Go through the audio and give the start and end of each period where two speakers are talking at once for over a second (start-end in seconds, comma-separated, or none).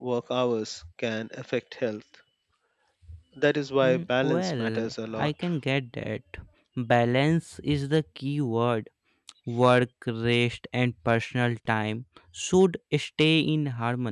3.8-5.3